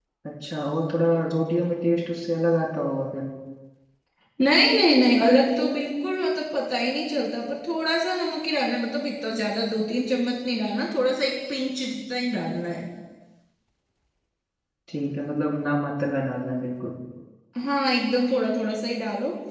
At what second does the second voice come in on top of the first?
none

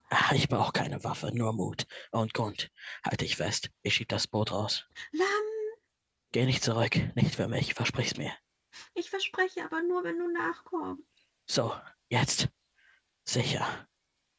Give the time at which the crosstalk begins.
none

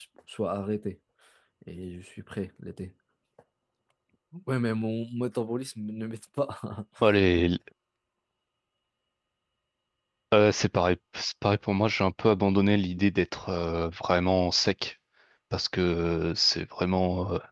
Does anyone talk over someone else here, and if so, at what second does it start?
none

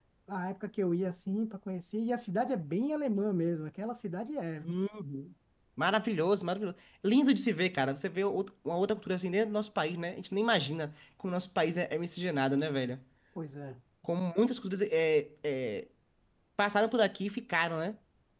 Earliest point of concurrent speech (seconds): none

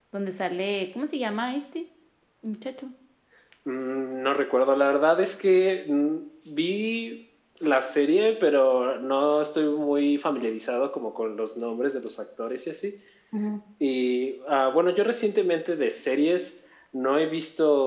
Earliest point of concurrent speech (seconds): none

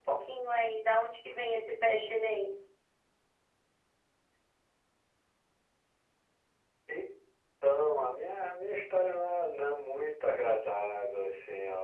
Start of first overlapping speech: none

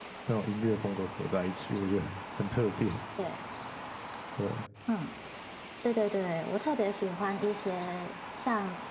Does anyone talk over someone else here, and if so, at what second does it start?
none

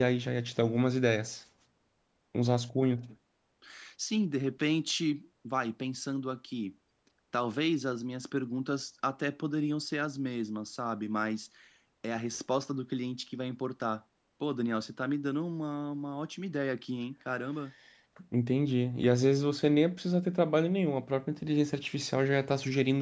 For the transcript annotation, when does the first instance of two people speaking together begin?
none

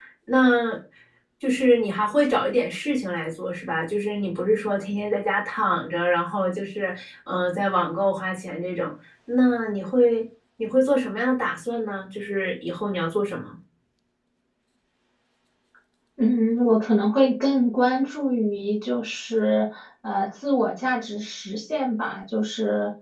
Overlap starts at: none

